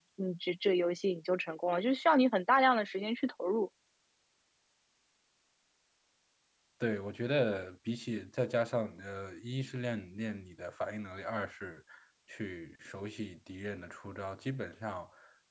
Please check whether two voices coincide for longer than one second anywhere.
No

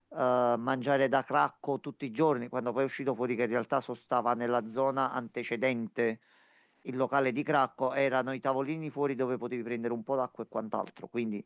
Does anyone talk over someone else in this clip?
No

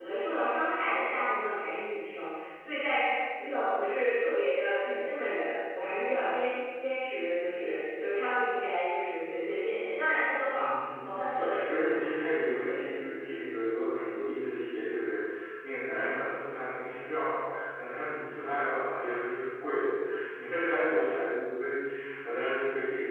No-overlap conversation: No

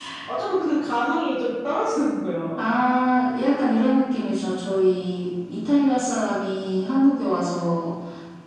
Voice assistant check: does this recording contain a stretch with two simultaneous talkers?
No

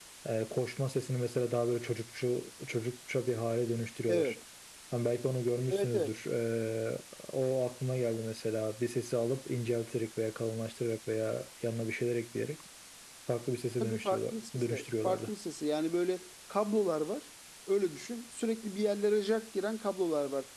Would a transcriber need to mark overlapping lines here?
Yes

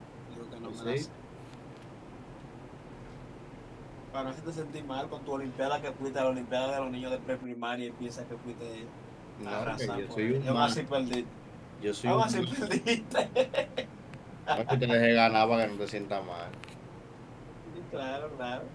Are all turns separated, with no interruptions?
No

